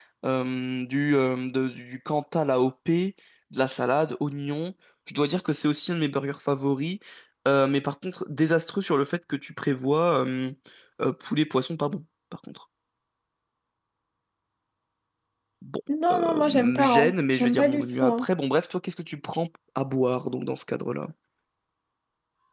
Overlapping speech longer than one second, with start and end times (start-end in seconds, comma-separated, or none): 16.1-18.3